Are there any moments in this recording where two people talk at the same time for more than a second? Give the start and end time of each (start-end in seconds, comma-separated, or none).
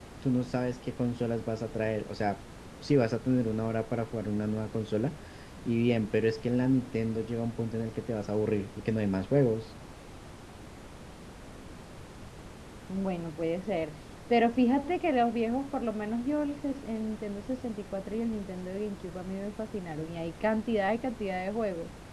none